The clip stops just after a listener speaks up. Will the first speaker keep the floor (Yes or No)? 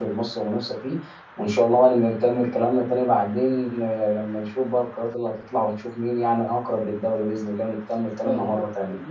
No